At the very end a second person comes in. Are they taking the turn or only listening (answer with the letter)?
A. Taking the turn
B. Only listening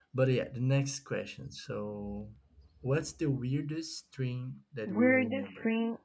A